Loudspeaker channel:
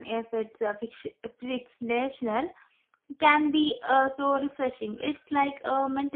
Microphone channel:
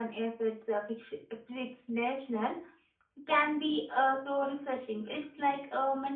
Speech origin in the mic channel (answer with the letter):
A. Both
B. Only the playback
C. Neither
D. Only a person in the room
B